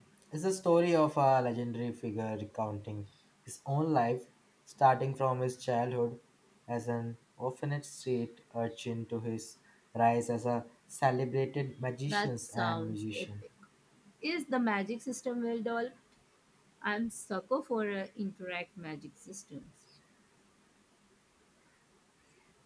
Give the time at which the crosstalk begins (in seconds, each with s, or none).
12.1 s